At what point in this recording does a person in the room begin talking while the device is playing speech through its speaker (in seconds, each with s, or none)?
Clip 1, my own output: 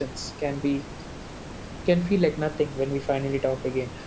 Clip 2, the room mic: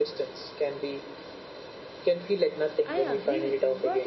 2.9 s